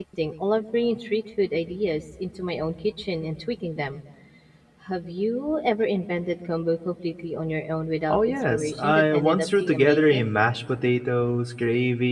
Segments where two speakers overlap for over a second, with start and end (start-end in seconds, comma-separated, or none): 8.1-10.3